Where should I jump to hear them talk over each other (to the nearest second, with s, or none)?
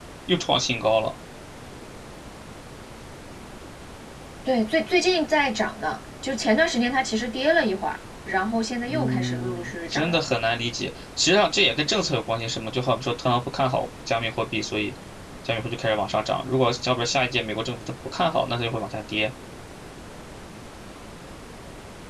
9 s